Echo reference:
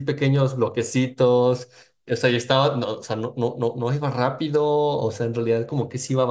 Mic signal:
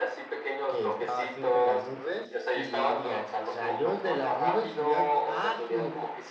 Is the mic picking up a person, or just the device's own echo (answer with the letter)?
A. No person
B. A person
B